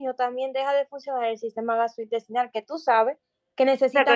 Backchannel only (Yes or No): No